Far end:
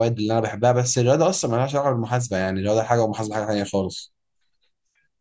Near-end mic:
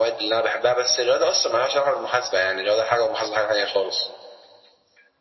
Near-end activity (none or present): none